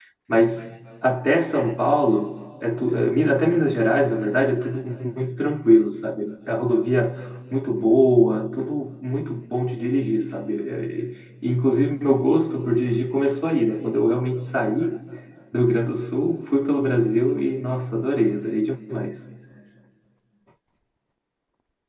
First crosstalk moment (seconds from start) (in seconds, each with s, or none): none